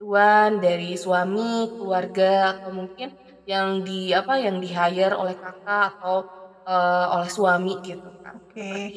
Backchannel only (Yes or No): No